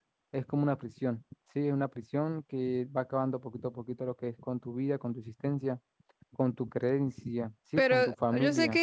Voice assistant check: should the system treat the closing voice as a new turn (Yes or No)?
Yes